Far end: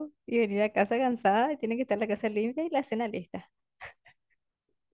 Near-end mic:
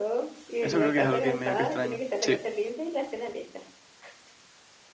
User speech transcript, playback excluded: Eso creo que es algo que medio que extraño. Sí,

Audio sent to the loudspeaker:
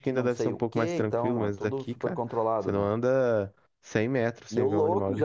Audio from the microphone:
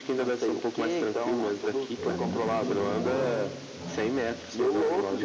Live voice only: Tem muito bicho de rua, né?

